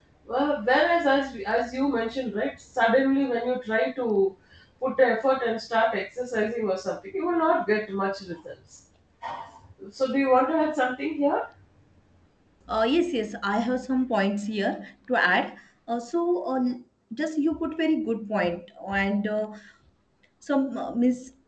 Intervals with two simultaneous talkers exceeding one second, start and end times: none

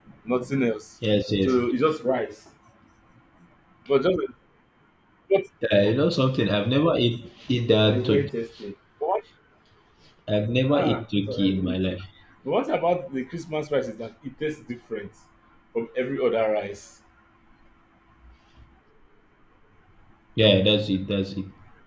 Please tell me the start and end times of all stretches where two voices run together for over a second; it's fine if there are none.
10.7-12.0

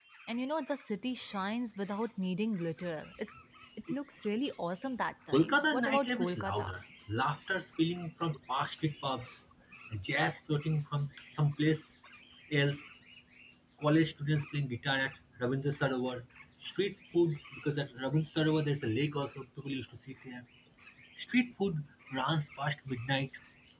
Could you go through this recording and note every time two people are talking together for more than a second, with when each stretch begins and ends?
5.3-6.7

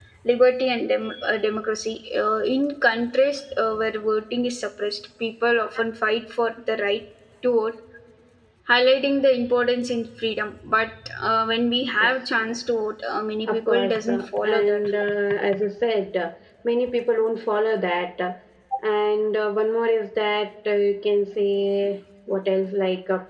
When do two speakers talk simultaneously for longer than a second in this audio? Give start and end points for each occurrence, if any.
13.5-14.8

